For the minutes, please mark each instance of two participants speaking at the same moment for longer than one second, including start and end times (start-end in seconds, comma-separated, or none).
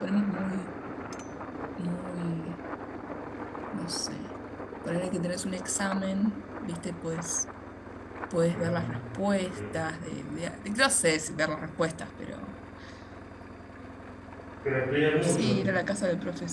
none